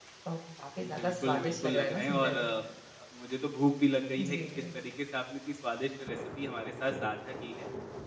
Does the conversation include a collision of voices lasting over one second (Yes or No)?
Yes